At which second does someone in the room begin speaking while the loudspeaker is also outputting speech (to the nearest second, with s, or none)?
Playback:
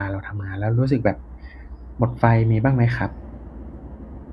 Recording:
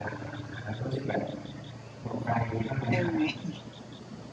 3 s